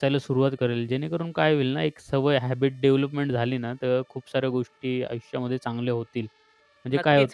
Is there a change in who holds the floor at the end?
Yes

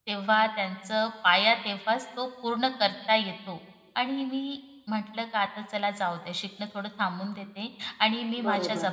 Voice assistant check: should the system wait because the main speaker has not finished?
Yes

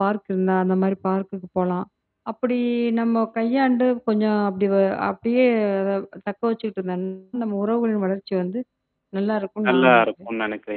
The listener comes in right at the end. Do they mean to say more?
Yes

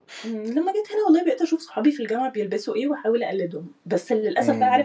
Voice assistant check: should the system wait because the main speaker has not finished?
Yes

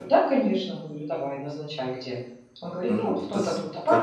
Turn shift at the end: Yes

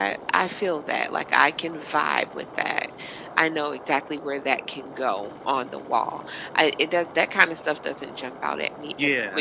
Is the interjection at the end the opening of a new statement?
Yes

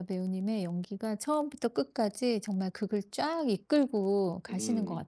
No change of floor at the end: No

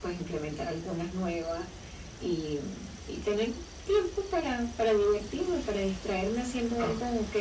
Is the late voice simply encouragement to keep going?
Yes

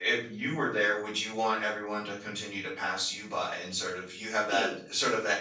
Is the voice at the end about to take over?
No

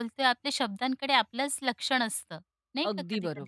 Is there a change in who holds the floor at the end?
Yes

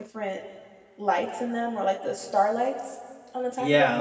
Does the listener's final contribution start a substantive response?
Yes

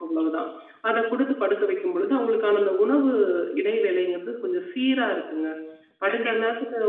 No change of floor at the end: Yes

